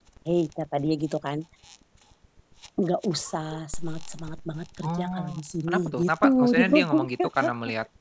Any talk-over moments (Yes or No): Yes